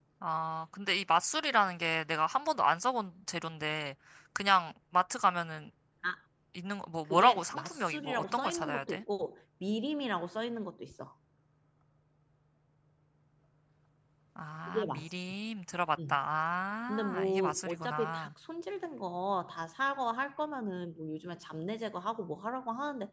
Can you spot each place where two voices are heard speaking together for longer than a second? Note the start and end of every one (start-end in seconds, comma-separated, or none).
7.0-9.0, 16.9-18.3